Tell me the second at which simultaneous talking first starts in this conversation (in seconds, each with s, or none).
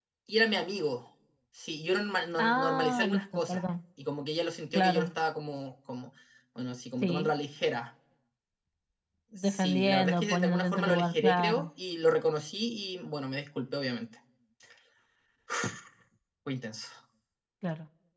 2.4 s